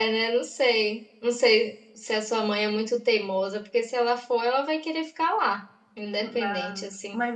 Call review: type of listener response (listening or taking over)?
taking over